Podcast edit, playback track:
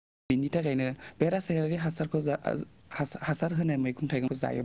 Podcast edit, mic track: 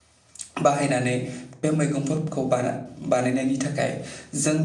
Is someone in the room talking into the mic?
Yes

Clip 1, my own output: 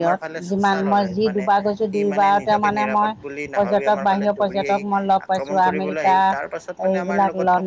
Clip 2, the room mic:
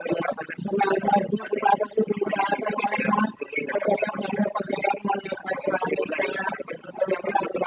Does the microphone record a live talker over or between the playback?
No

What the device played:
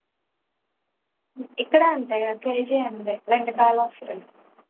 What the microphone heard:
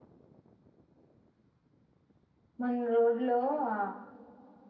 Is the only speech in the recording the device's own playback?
No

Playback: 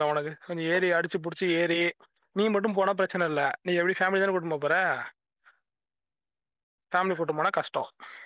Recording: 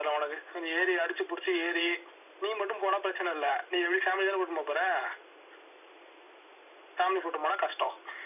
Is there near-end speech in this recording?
No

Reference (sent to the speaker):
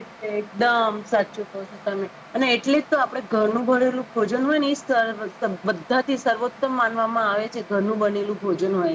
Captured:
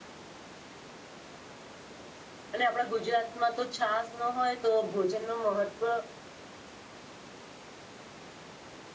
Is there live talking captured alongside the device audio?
Yes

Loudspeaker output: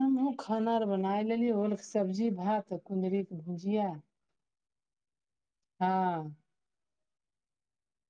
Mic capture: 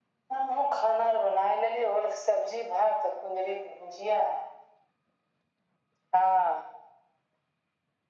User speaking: No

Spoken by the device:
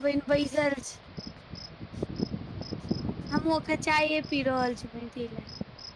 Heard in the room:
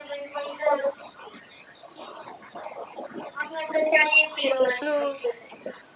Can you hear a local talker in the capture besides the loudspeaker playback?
Yes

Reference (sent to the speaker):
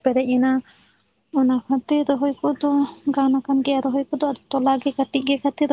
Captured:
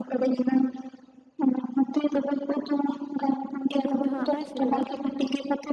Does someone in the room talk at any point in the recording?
Yes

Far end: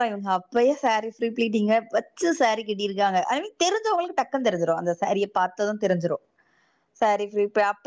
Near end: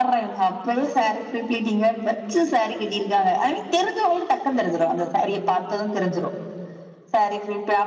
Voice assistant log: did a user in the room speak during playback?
No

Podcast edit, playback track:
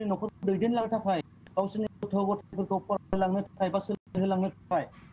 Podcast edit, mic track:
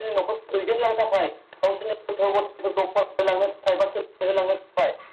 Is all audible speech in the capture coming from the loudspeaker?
Yes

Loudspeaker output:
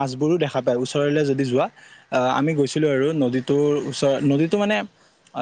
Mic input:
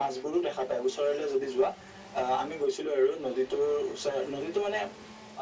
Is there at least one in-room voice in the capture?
No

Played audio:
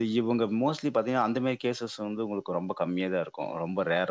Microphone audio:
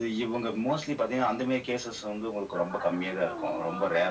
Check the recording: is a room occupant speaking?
Yes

